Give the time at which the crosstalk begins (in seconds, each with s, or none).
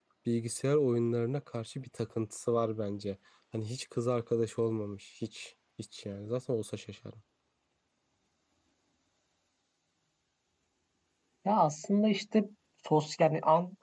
none